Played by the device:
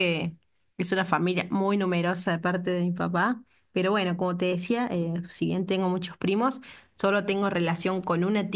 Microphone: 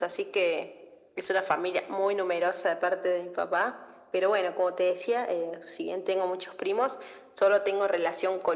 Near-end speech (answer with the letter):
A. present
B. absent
B